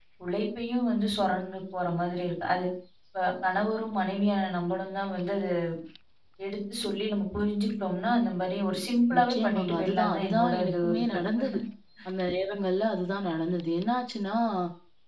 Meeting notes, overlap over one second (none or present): present